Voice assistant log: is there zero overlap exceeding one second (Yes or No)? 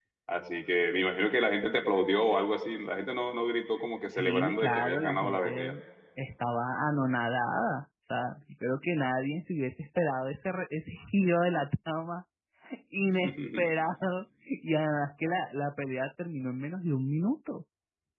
No